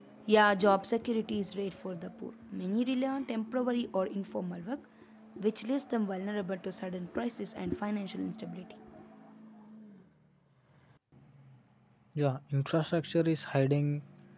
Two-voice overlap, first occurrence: none

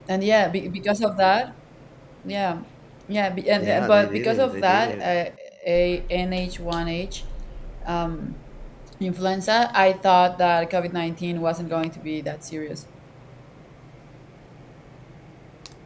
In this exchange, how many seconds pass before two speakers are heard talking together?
3.6 s

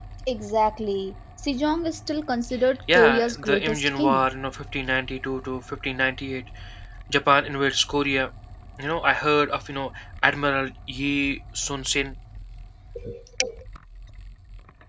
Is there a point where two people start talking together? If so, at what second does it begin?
2.9 s

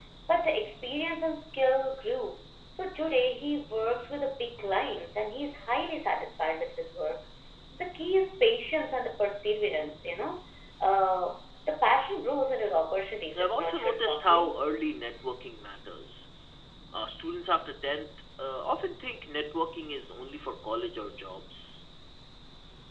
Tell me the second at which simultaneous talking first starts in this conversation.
13.4 s

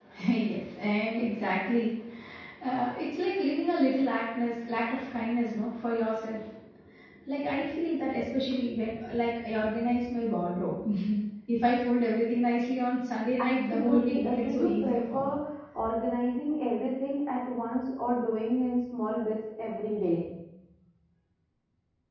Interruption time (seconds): 13.4 s

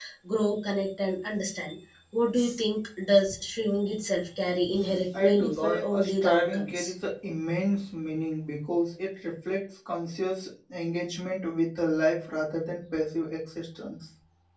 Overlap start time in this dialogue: 4.6 s

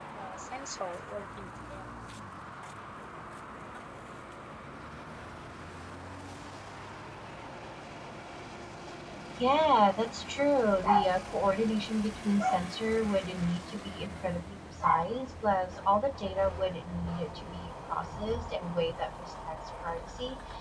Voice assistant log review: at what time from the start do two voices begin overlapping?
none

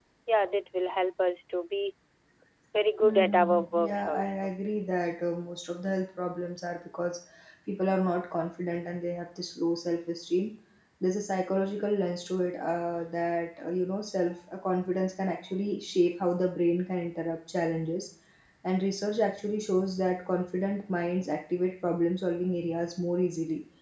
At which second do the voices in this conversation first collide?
3.0 s

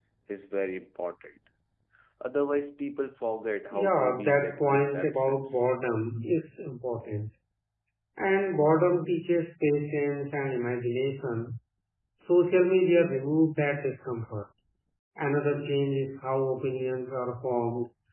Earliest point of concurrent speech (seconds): 3.7 s

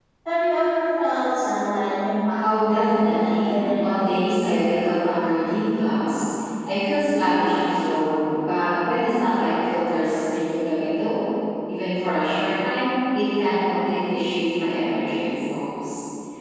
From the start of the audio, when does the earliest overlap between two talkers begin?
2.4 s

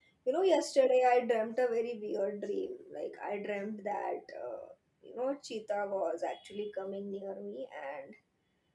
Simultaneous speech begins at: none

